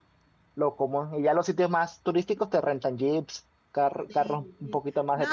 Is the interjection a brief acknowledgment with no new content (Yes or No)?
No